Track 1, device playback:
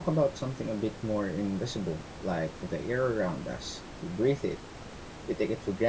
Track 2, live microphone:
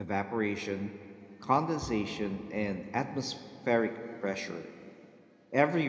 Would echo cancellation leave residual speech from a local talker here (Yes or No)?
Yes